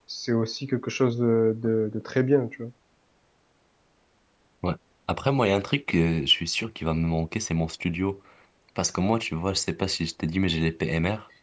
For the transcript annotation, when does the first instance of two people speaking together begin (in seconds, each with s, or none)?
none